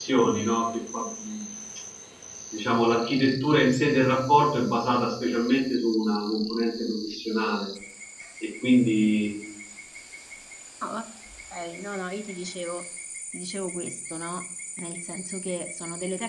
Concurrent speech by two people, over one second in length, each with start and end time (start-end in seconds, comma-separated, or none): none